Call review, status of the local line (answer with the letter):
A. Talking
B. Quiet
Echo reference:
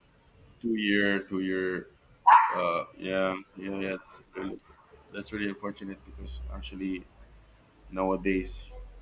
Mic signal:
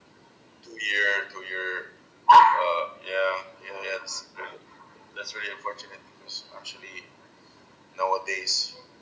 B